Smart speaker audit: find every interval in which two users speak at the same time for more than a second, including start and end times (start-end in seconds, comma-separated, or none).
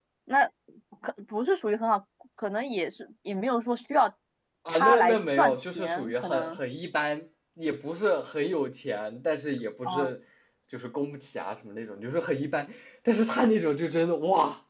4.7-6.6